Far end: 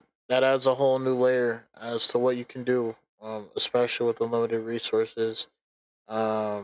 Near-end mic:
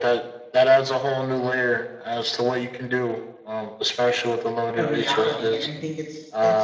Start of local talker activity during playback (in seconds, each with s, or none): 4.7 s